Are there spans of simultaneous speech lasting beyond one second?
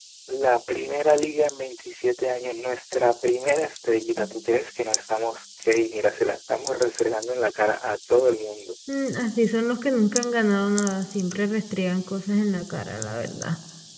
No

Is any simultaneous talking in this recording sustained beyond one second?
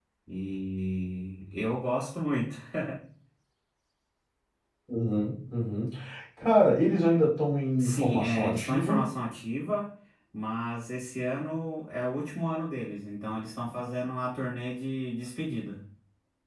Yes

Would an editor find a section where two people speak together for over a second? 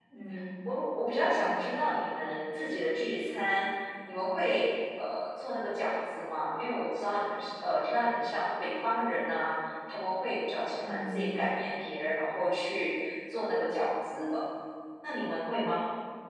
No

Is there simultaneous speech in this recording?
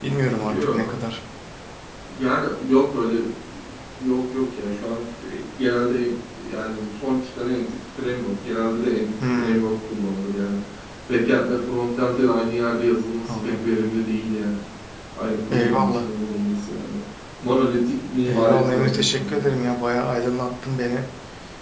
Yes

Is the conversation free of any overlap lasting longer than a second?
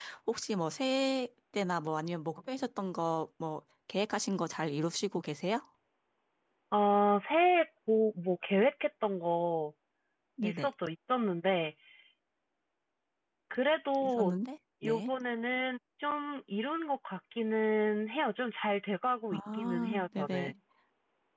No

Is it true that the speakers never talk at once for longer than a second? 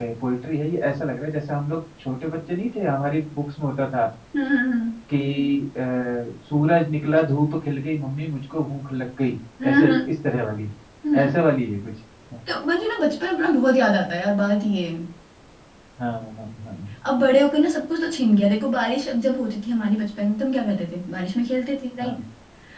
Yes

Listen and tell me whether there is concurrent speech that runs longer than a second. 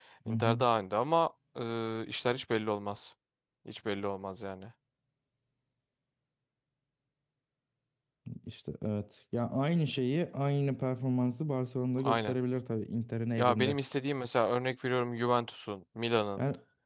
No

